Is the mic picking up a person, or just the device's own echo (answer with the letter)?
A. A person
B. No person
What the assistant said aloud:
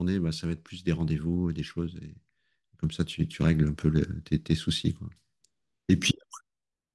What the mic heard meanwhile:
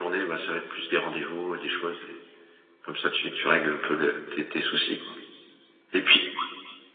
B